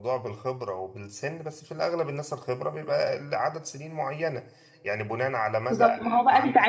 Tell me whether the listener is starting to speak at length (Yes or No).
Yes